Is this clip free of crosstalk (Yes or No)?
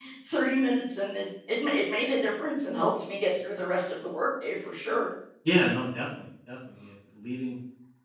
Yes